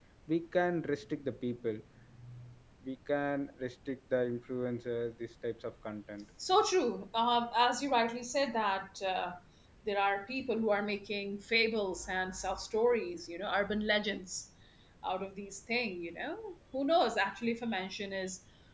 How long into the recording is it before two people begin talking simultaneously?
none

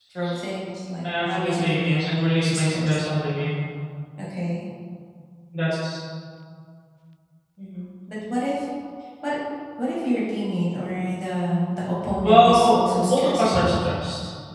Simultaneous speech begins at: 1.3 s

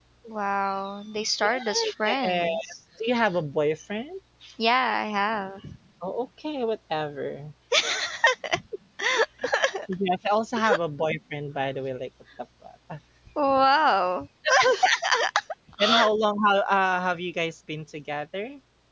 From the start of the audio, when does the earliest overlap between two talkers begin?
1.4 s

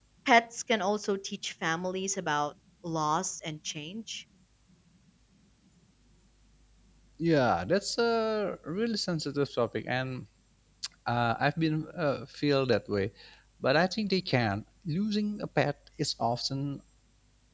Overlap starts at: none

